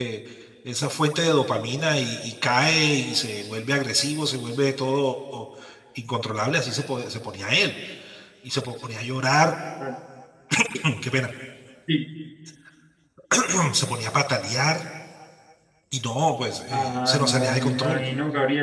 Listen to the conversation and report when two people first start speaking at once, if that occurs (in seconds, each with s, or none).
16.7 s